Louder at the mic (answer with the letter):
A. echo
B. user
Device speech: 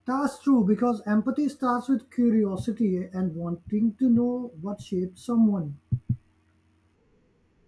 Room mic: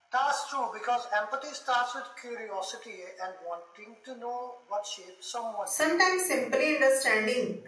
B